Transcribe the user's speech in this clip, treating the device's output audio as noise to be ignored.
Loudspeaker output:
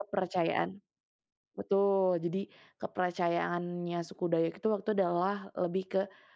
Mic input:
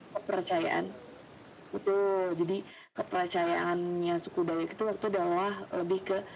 none

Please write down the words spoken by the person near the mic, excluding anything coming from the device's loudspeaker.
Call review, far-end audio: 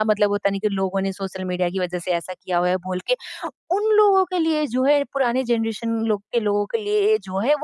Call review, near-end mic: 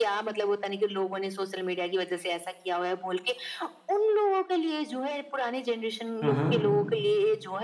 हुँ, हुँ।

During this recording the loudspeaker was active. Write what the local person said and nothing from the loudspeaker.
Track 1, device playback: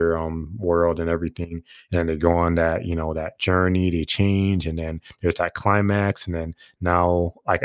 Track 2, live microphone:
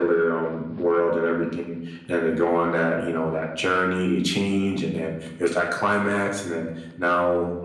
none

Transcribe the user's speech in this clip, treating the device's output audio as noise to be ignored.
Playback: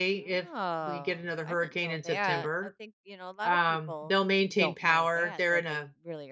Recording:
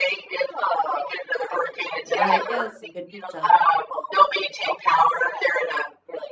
Well, heck yeah, that's some good pizza.

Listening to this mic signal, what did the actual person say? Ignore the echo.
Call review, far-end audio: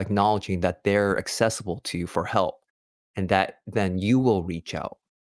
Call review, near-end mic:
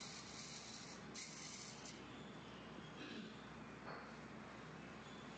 none

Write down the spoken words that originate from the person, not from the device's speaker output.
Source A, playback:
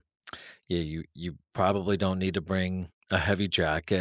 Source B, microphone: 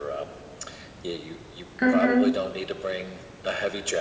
hmm

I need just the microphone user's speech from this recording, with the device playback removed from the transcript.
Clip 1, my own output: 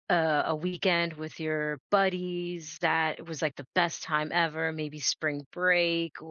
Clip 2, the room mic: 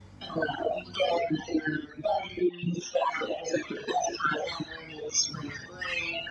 none

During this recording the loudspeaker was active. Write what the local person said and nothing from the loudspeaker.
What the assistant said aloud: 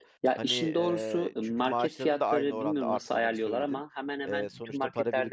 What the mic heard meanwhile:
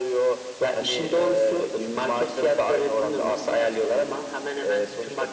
none

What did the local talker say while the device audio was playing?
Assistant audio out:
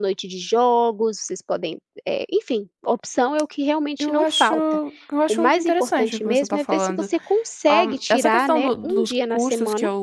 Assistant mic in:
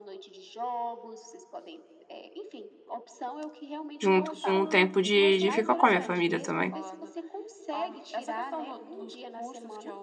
junto com o tempo de de ficar com a minha família também.

